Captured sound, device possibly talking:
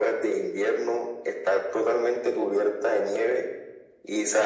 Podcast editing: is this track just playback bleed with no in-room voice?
Yes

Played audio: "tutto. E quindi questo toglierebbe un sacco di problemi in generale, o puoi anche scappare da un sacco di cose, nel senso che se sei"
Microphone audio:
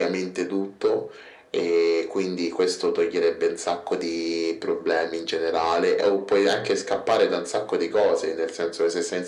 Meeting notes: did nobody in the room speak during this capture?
Yes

